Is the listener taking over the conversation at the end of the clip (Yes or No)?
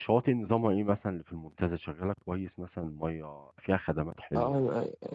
Yes